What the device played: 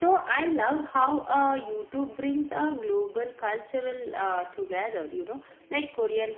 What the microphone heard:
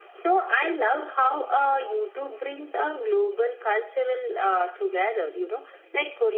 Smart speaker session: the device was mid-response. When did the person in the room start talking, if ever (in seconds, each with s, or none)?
none